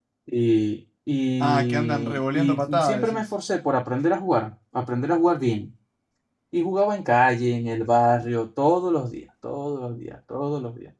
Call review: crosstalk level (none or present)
present